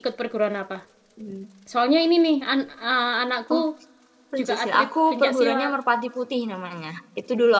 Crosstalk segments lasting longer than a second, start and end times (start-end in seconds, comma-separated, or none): 4.4-5.7